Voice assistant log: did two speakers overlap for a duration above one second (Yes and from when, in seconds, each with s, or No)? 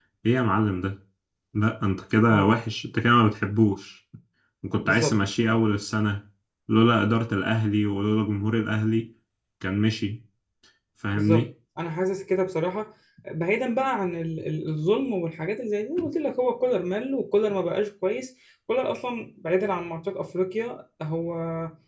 No